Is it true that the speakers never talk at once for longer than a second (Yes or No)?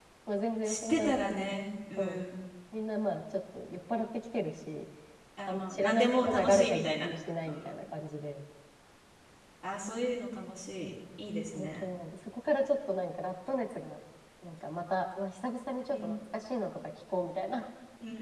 No